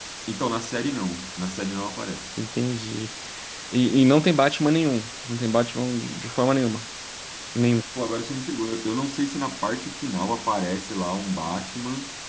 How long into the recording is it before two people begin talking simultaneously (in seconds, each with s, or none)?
none